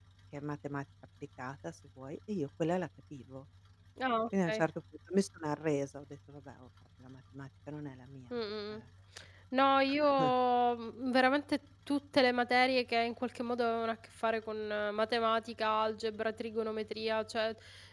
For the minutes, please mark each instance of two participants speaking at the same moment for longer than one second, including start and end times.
none

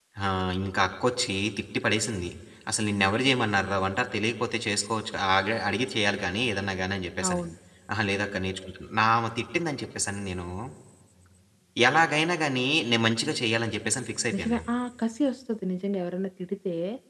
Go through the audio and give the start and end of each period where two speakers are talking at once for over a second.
none

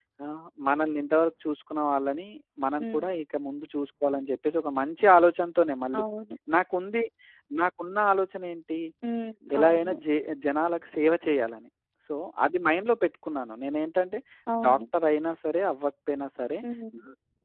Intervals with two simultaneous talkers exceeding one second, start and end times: none

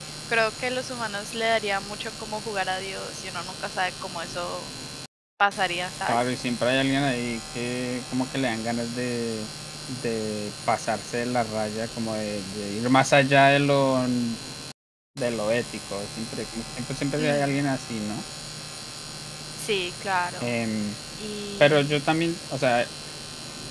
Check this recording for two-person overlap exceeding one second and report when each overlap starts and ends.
none

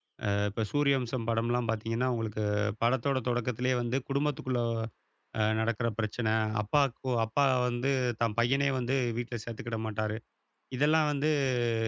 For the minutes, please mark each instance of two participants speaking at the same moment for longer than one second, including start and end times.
none

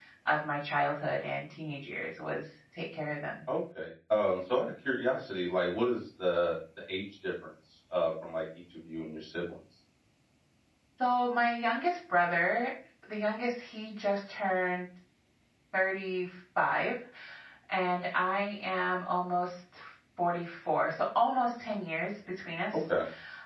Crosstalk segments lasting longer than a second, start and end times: none

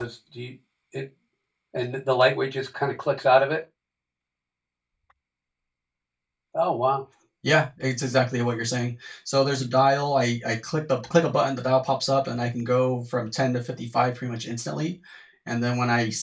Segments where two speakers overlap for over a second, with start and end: none

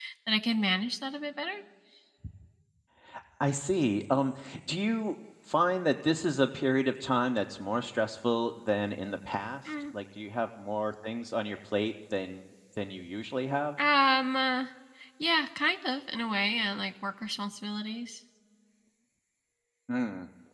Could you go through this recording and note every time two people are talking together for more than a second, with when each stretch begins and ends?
none

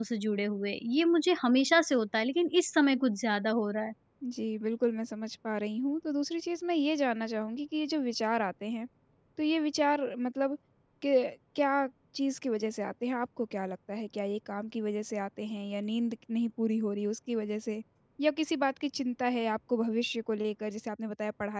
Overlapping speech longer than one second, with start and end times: none

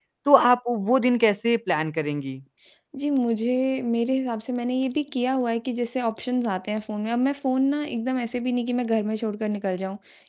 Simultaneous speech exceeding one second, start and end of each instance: none

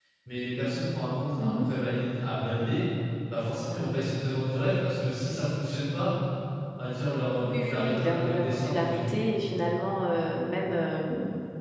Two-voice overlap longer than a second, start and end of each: 7.4-9.2

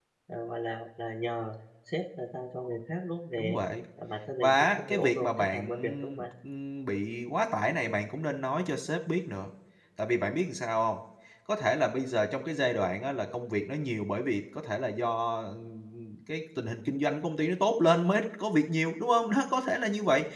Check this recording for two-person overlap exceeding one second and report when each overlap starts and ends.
4.4-6.2

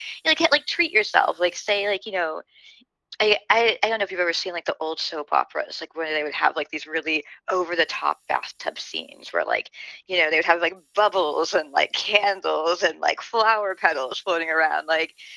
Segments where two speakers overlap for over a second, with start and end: none

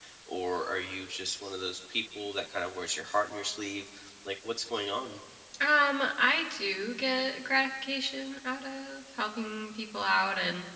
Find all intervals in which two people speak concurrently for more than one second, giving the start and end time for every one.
none

